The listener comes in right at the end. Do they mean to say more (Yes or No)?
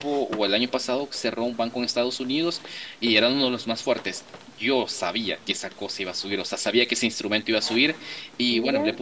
No